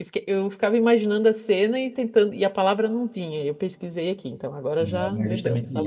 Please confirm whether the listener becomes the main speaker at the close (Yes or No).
Yes